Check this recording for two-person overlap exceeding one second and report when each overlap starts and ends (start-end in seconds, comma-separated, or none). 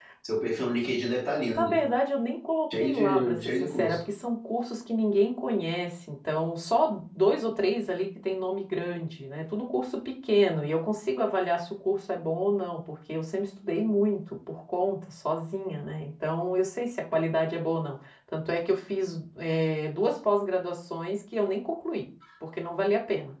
2.8-4.0